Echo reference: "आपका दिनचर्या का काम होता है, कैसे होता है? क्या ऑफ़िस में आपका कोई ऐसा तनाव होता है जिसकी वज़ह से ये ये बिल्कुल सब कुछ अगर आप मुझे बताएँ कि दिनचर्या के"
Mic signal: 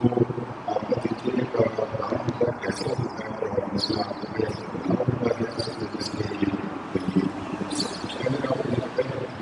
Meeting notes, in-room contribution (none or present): none